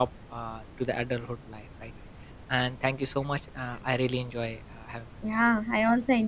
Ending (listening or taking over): taking over